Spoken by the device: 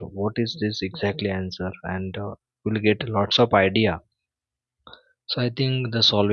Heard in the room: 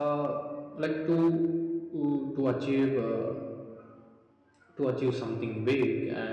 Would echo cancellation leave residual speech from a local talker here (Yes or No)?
Yes